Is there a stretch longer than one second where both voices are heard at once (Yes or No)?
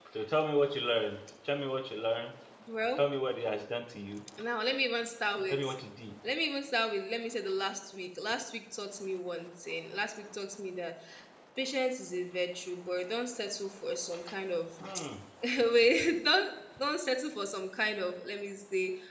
No